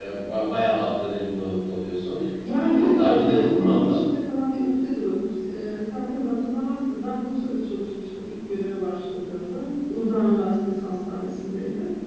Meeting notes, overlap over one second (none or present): present